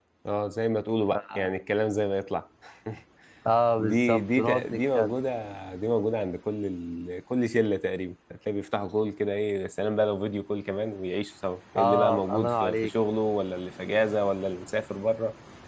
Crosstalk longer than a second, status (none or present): present